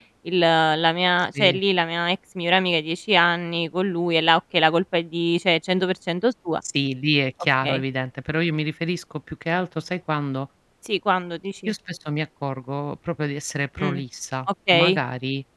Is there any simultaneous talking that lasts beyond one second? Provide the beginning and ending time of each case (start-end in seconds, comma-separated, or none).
none